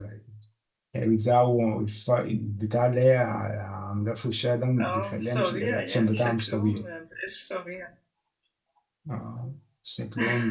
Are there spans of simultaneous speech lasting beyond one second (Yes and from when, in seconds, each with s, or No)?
Yes, from 4.8 s